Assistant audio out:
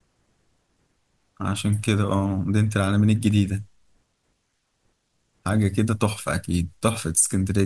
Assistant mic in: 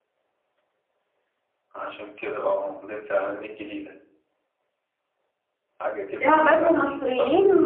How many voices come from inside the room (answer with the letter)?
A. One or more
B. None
A